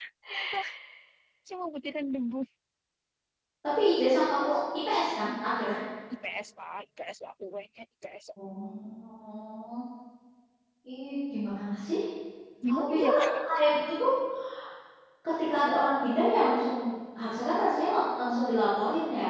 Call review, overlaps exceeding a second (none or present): none